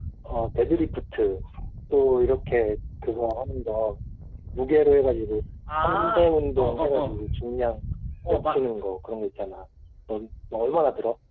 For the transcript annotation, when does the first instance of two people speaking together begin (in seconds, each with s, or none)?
5.8 s